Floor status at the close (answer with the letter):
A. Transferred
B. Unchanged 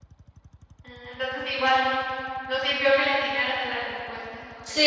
A